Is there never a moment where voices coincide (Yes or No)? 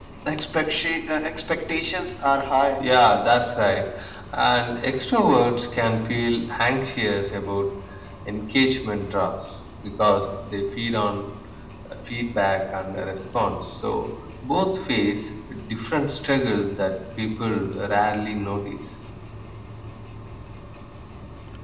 Yes